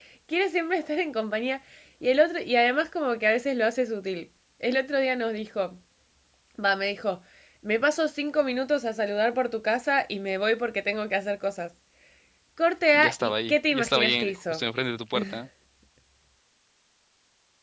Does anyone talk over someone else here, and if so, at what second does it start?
12.9 s

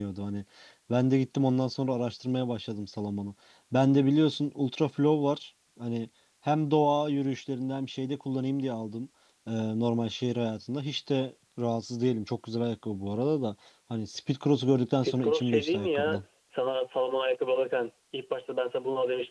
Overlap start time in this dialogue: 15.0 s

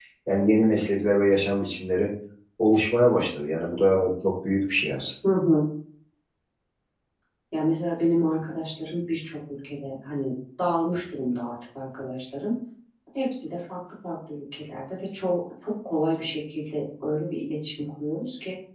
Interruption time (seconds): none

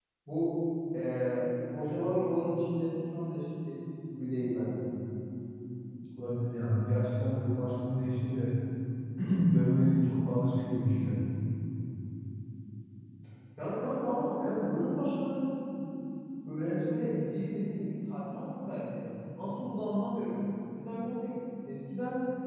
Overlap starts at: none

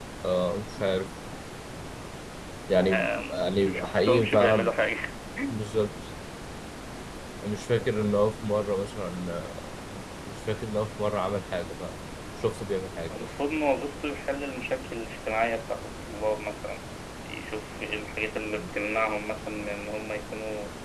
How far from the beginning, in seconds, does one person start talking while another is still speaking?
2.8 s

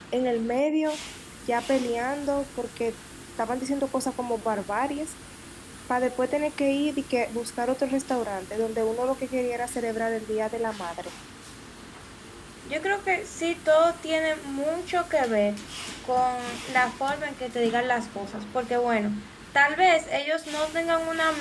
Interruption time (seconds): none

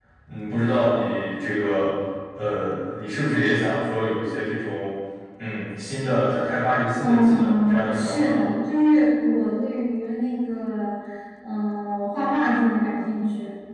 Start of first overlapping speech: 7.0 s

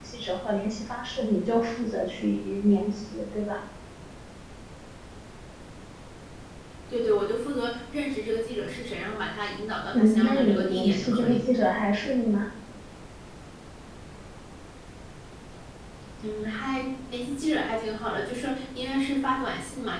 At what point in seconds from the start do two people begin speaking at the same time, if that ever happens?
9.9 s

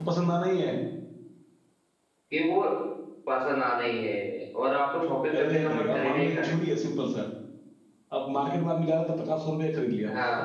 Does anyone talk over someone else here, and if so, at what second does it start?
5.3 s

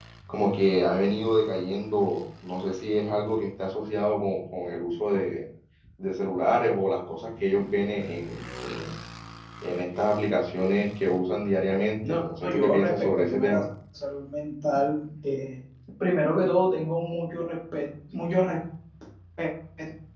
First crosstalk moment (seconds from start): 12.0 s

